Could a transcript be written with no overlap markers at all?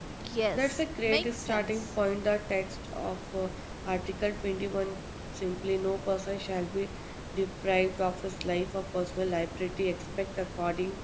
No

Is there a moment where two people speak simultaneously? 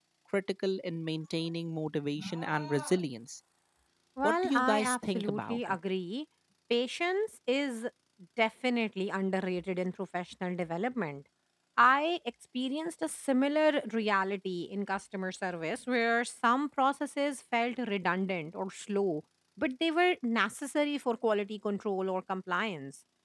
Yes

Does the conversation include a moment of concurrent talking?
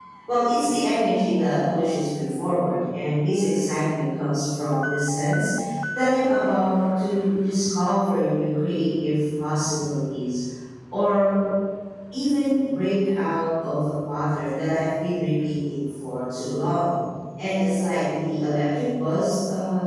No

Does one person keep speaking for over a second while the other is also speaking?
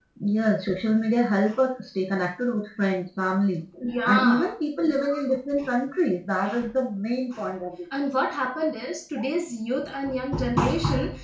No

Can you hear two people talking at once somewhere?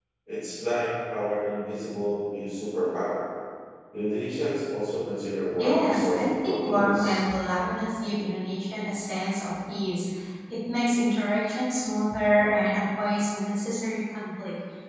Yes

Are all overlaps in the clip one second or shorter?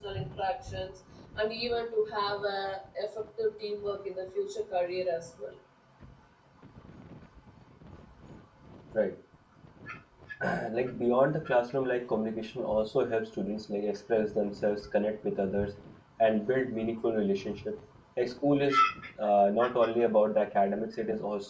Yes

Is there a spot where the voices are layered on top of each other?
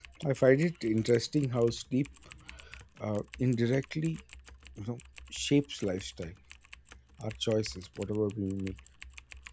No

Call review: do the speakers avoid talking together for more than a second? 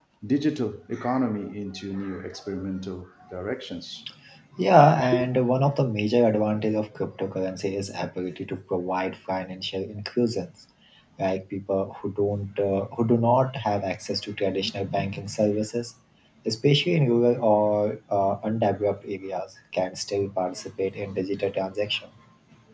Yes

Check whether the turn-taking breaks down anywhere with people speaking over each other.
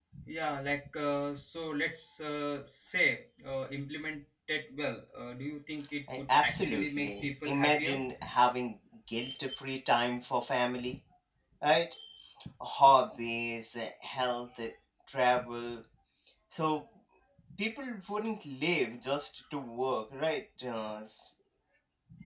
Yes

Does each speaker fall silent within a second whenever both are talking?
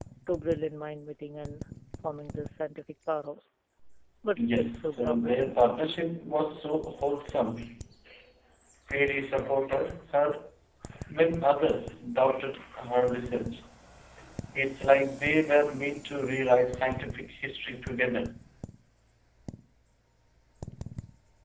No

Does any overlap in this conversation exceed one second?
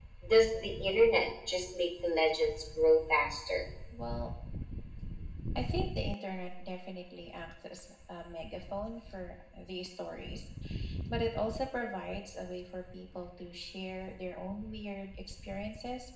No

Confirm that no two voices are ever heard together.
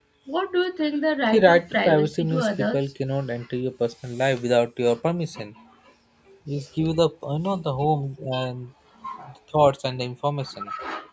No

